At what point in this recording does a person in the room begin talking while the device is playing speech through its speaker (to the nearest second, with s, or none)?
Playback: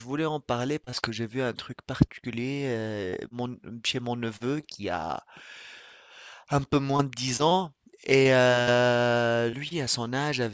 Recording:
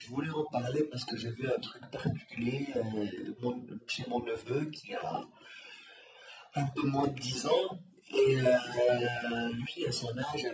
none